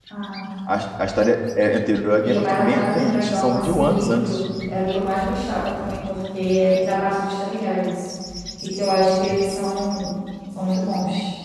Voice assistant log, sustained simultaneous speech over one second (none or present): present